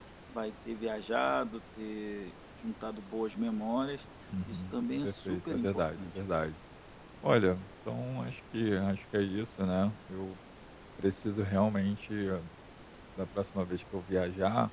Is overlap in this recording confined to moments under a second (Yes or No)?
No